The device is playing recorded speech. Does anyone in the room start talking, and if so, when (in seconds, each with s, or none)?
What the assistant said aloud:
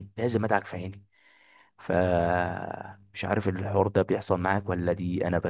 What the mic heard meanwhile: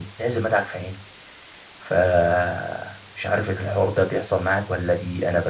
none